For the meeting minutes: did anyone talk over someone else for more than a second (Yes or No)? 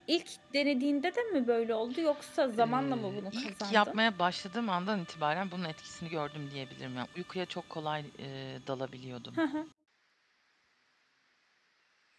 Yes